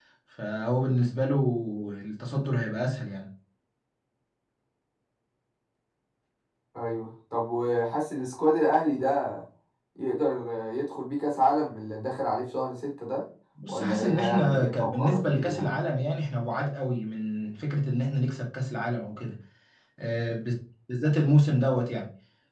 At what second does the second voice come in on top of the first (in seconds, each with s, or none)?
13.7 s